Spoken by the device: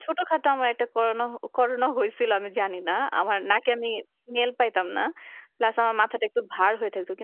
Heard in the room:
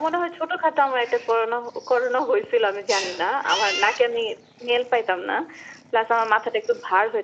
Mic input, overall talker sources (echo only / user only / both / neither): both